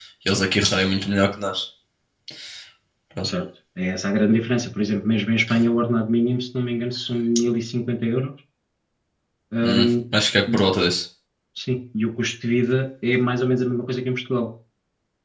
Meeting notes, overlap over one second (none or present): none